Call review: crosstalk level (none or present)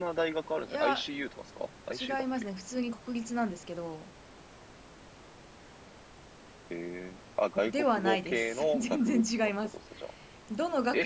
present